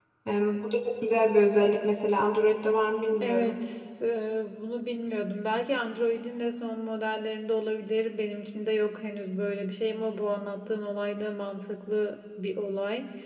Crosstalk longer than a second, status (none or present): none